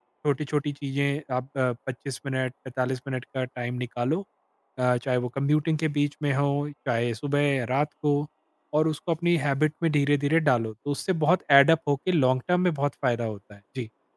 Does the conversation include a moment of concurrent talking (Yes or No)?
No